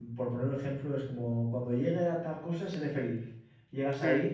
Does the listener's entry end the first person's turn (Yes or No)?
No